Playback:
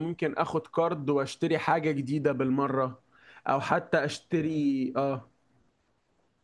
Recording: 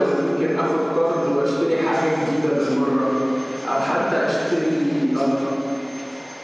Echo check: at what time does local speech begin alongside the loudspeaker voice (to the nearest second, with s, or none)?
none